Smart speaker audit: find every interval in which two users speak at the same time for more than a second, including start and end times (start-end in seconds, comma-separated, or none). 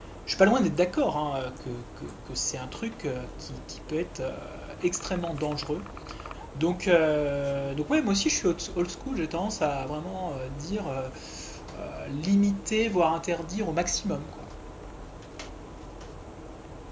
none